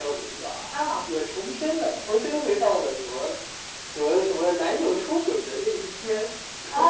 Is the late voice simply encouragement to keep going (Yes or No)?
No